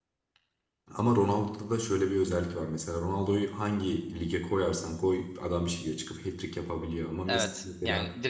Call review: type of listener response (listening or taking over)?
taking over